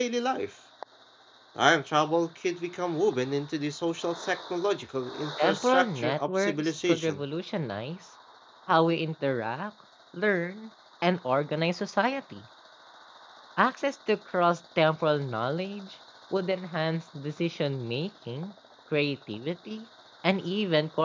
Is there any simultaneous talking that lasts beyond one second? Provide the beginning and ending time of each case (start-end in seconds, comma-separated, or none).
5.4-7.2